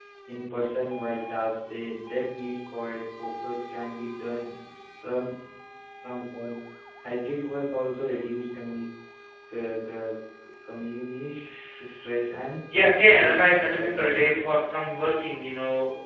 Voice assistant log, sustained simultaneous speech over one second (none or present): present